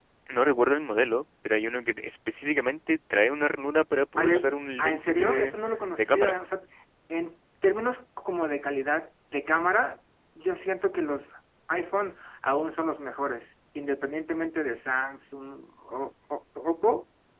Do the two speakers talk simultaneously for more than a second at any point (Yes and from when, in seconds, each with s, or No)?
Yes, from 4.2 s